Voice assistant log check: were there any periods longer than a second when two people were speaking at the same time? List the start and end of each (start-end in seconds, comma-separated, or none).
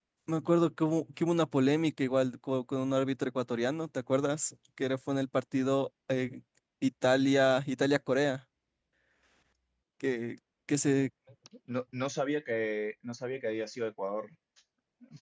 none